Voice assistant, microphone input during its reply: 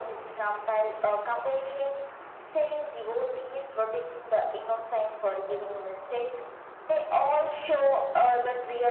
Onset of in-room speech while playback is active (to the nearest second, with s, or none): none